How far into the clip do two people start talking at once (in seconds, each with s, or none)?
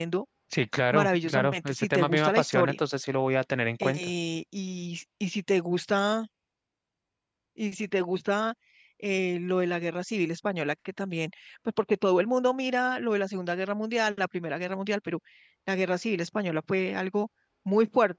0.9 s